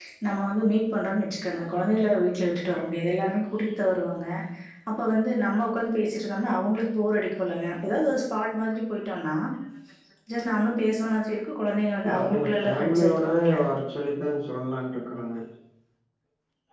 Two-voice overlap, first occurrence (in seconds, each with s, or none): 12.0 s